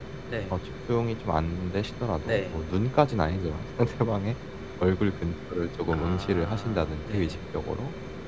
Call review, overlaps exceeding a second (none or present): present